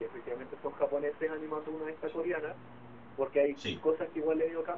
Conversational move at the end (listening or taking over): listening